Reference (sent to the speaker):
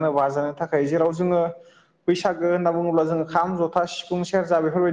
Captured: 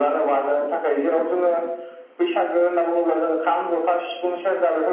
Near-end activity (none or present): none